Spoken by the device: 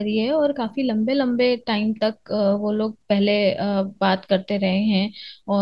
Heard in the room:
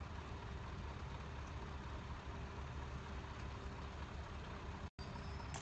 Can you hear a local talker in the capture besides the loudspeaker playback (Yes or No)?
No